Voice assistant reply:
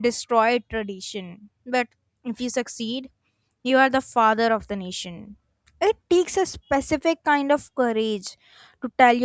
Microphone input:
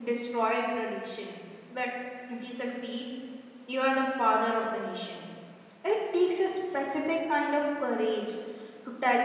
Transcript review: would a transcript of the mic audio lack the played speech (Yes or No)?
No